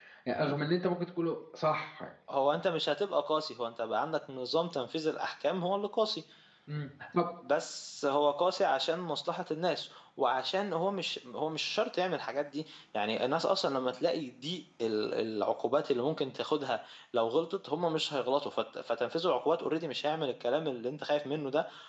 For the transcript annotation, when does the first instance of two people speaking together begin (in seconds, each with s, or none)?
none